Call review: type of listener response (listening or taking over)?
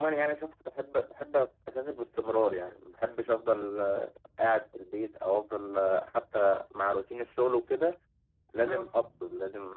listening